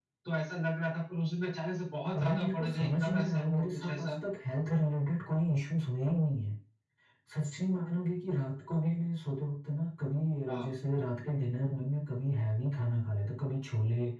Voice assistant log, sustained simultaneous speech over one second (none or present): present